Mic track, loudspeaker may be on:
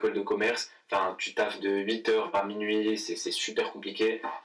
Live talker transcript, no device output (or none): none